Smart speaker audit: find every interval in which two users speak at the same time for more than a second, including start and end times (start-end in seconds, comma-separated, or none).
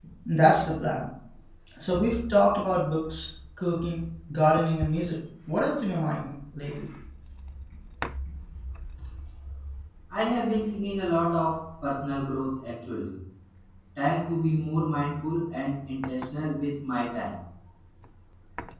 none